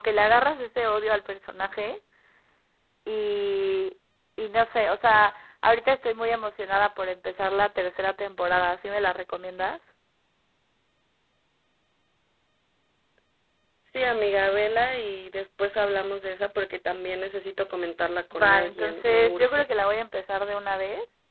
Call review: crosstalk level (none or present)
present